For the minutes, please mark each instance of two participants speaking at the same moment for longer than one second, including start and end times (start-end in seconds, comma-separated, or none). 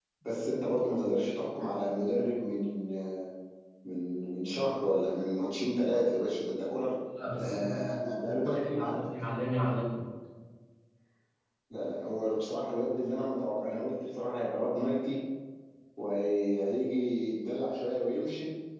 7.4-9.0